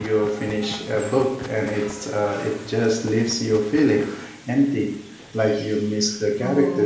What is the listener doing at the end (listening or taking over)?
taking over